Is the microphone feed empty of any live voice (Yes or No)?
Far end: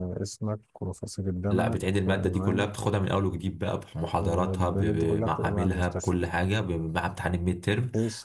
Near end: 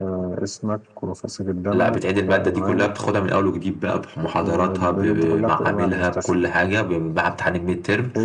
Yes